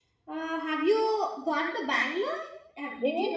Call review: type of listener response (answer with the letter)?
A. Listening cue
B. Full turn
B